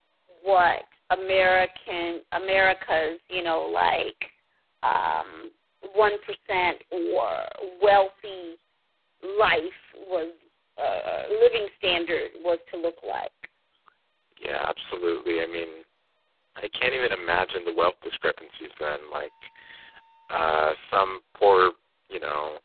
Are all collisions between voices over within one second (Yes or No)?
Yes